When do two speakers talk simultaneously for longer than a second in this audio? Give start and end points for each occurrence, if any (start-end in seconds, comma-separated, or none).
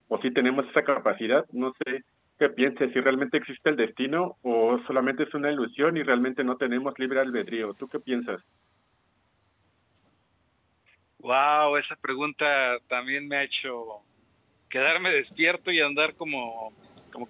none